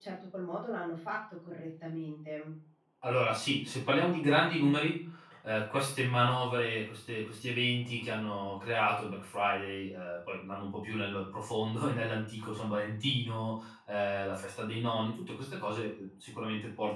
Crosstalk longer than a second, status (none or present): none